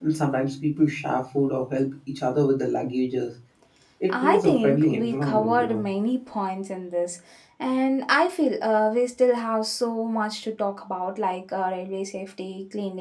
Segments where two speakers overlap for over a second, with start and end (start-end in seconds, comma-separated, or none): 4.1-5.8